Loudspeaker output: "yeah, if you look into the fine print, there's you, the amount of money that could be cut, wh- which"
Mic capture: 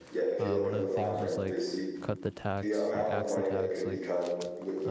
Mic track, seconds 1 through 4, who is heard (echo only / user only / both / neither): both